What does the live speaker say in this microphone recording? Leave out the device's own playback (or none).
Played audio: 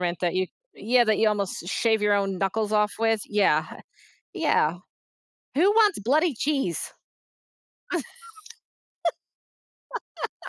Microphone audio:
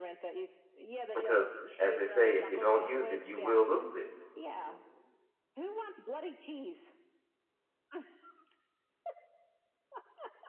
because, as they say, if you don't use it, you will lose it.